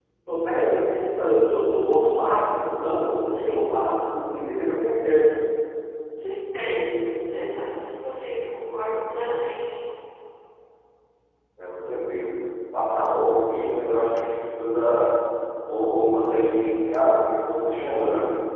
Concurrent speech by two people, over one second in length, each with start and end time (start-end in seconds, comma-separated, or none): none